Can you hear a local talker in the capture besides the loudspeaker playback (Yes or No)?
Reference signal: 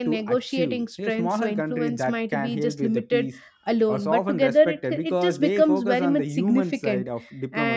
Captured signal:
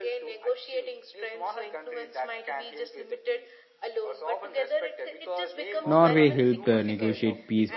Yes